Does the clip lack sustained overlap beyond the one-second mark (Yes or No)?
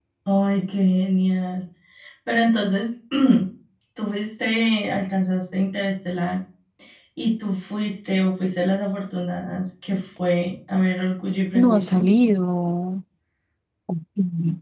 Yes